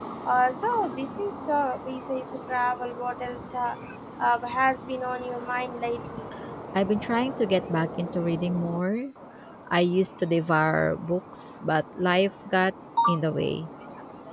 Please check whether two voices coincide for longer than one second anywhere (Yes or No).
No